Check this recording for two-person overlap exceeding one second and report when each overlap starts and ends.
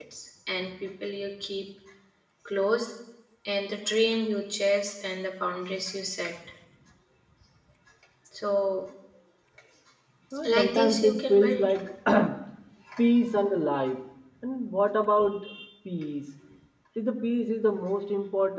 10.4-11.7

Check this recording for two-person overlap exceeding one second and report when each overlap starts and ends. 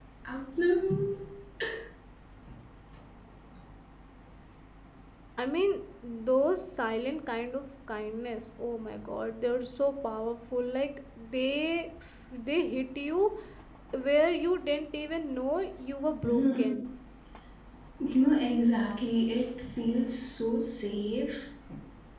none

